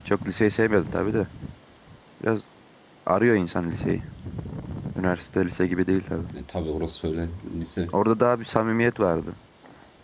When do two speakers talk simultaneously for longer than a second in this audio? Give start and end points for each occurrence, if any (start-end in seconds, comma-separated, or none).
none